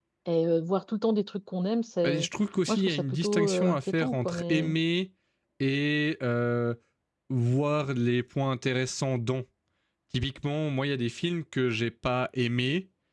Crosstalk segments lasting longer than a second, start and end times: 2.7-4.8

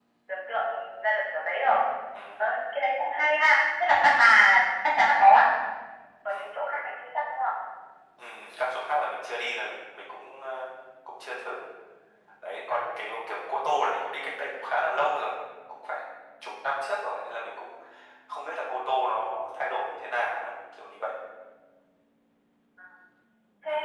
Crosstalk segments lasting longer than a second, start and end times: none

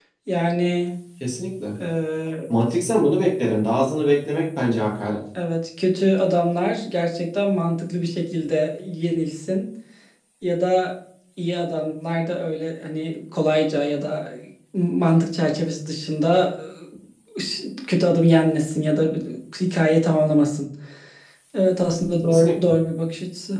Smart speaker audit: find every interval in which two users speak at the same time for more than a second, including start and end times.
none

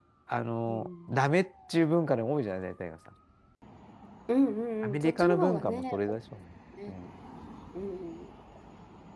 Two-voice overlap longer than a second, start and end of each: 4.8-6.2

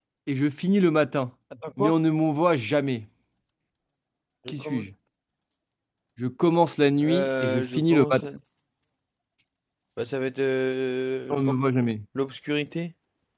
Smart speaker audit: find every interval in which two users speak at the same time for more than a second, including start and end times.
7.0-8.3

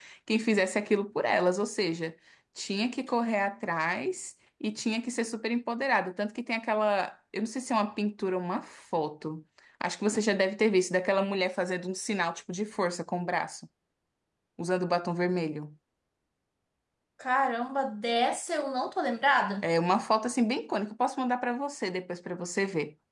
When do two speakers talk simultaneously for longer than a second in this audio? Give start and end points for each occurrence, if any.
none

